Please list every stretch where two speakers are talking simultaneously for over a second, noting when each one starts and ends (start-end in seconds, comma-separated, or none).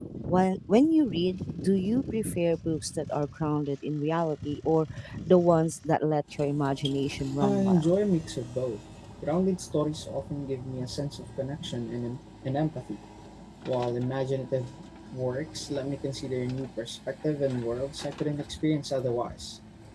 none